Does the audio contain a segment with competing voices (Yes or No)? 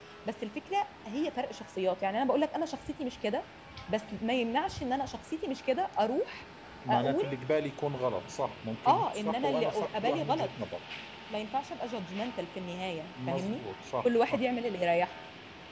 Yes